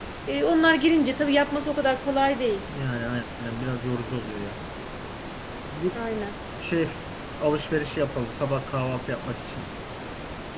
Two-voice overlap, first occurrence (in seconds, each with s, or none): none